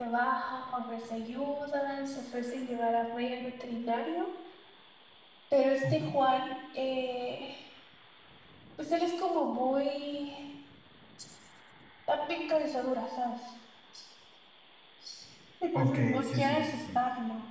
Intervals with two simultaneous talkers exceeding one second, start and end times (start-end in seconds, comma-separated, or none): 15.8-17.0